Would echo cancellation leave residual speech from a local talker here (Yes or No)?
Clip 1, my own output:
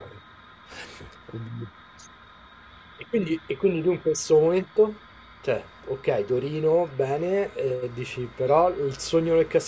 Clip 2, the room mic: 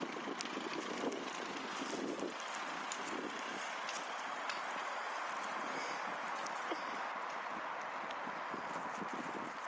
No